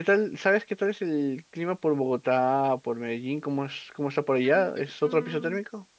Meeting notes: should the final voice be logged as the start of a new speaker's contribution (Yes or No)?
Yes